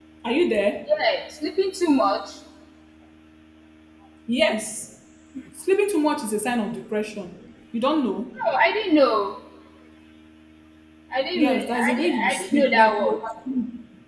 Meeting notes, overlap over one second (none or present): present